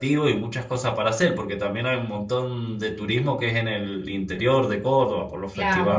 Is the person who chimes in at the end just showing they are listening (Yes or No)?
No